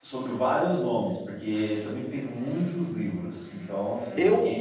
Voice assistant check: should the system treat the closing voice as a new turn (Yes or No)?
Yes